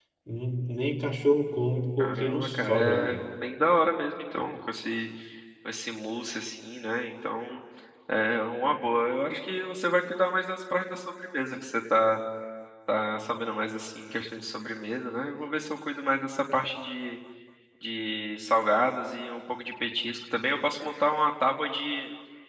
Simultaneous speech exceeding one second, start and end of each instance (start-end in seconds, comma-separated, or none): 2.0-3.2